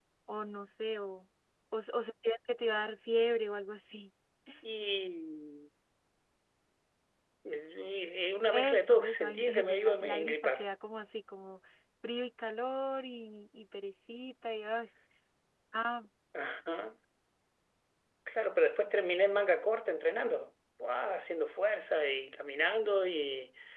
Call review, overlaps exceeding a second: present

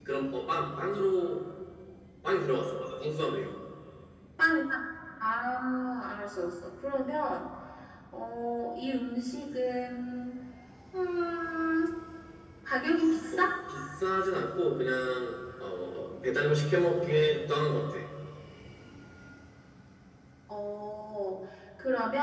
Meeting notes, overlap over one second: none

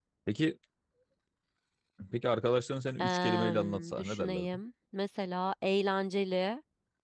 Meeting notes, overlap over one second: present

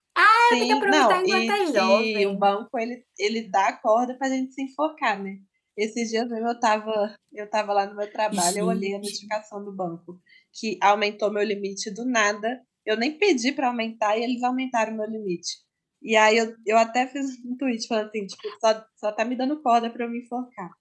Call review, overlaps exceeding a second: present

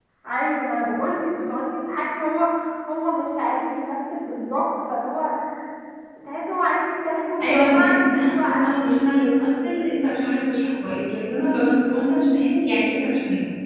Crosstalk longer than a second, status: present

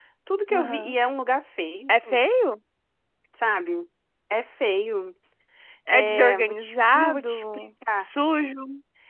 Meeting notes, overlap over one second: present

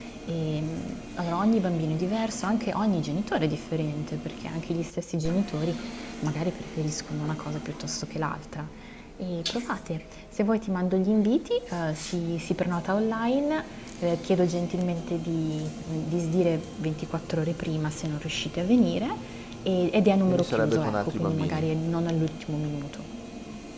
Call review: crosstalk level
present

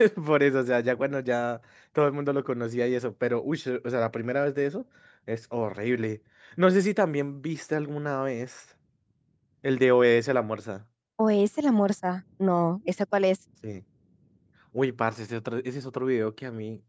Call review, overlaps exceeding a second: none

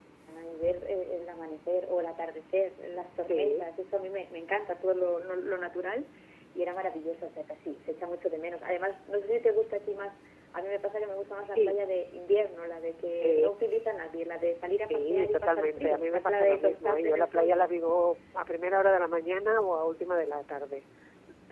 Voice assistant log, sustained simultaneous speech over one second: present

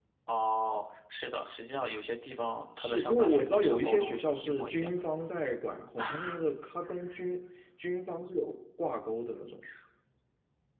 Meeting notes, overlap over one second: present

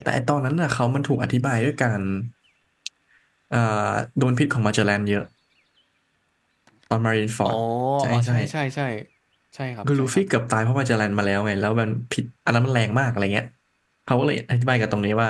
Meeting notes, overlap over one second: none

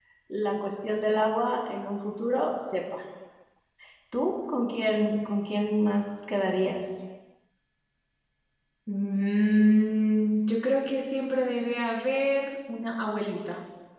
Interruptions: none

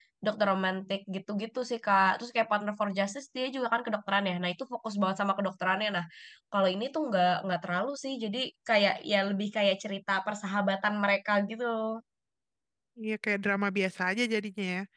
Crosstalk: none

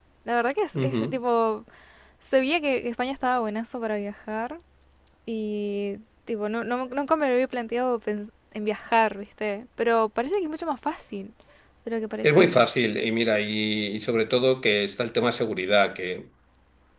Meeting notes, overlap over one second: none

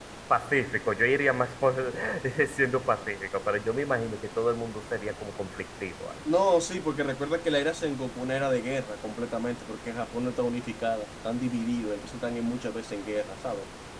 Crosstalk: none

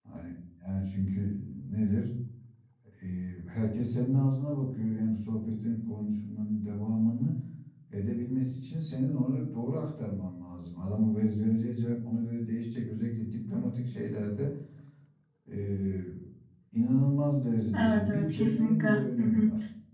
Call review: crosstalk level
present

